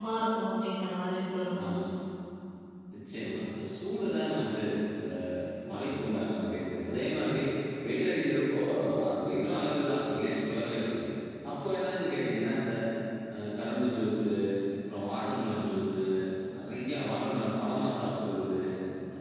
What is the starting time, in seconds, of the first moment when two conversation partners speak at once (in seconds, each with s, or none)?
none